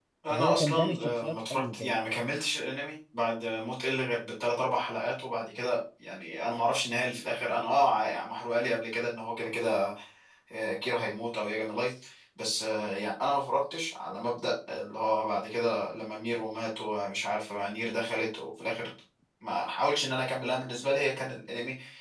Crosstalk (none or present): present